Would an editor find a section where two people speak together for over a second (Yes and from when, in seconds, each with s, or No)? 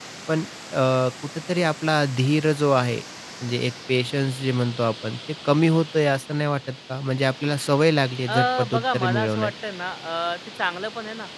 Yes, from 8.3 s